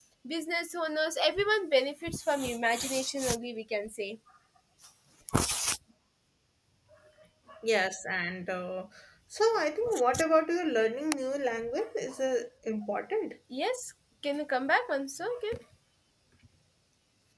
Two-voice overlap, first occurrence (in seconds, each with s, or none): none